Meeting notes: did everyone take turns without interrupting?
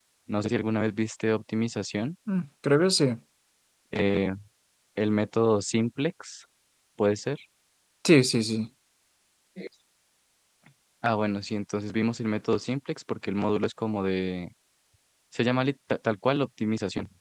Yes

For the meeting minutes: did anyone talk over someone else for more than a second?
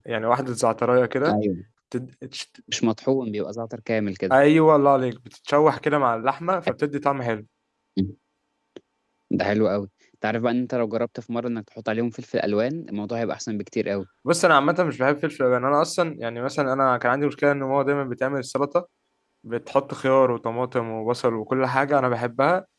No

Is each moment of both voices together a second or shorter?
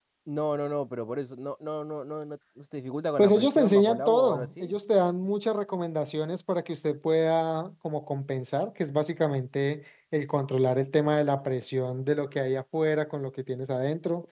No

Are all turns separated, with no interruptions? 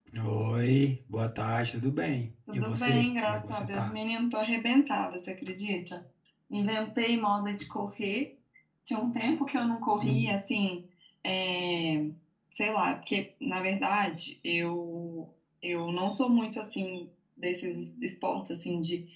No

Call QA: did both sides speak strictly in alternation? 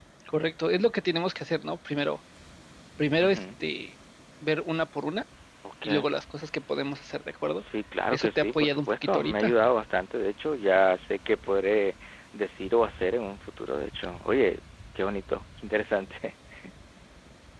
No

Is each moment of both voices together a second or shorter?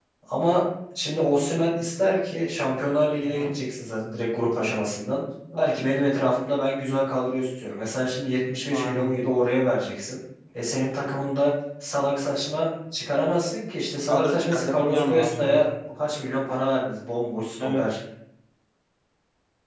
No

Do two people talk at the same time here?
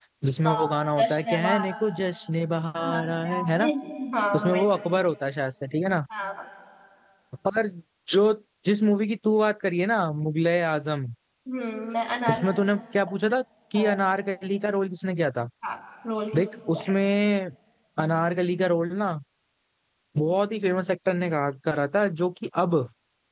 Yes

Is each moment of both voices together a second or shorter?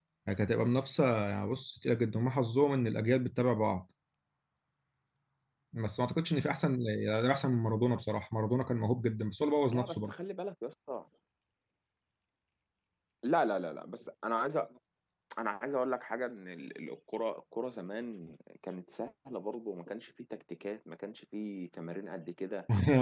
Yes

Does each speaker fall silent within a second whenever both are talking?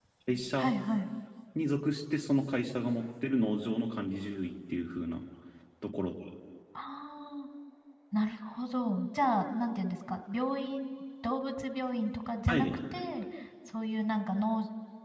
Yes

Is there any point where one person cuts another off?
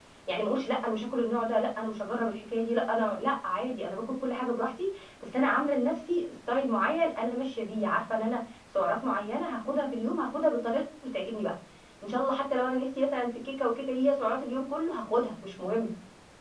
No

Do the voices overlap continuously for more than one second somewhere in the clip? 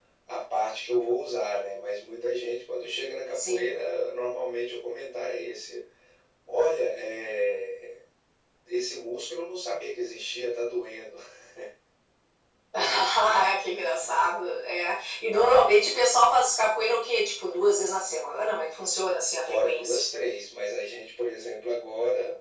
No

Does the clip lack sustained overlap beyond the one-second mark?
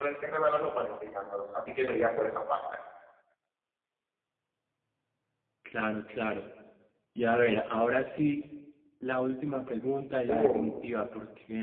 Yes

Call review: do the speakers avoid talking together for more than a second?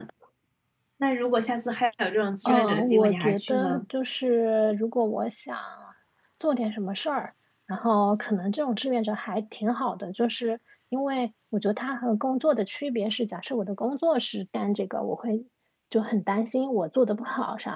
No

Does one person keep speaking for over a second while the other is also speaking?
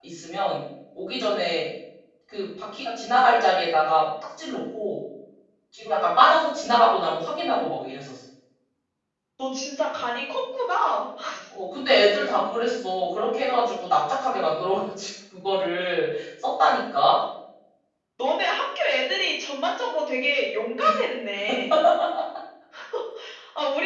No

